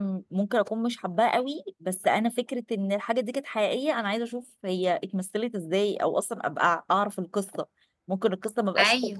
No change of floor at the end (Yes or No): Yes